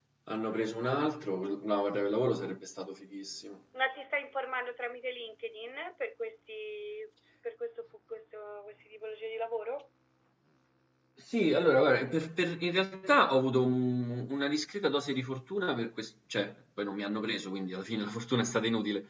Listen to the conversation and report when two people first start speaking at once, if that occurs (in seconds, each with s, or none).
none